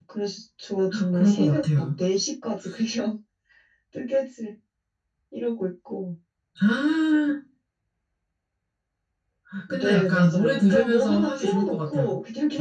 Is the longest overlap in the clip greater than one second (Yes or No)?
Yes